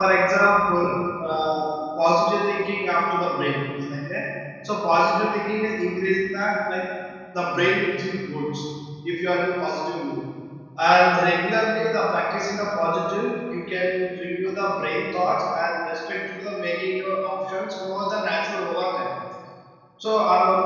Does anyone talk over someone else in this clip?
No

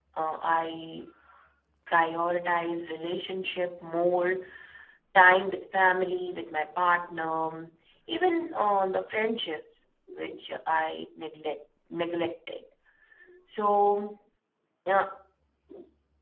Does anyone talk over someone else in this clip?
No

